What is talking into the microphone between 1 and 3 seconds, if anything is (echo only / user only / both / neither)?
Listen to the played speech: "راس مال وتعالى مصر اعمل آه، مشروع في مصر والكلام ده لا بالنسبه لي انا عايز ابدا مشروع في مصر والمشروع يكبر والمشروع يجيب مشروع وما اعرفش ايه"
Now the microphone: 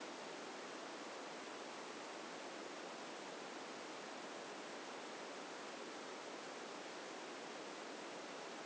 neither